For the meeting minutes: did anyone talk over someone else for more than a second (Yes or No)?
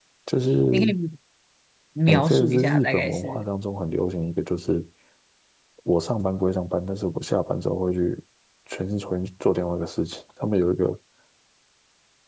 Yes